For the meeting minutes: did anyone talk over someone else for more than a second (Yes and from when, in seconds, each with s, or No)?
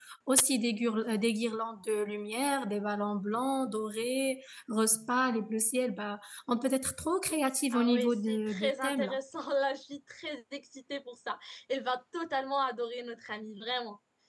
Yes, from 7.7 s